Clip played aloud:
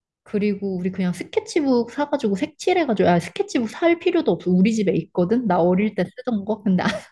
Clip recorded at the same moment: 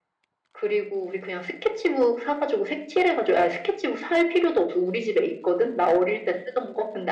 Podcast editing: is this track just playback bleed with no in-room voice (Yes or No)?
Yes